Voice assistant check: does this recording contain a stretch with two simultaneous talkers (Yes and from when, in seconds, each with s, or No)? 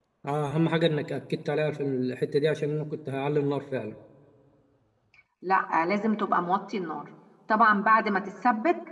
No